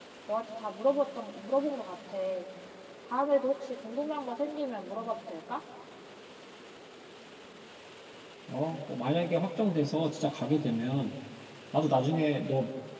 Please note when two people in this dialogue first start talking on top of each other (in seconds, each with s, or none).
none